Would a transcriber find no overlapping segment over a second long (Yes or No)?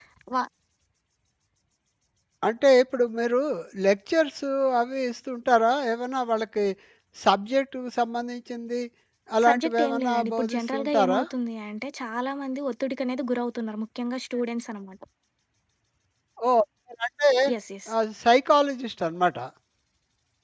No